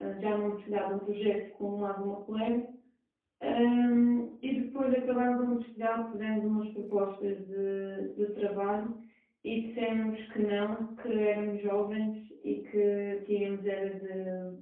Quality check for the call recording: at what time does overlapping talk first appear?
none

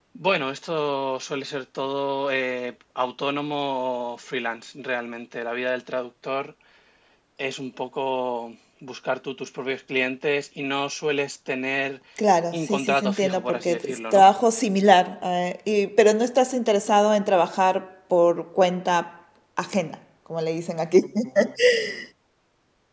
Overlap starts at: 12.5 s

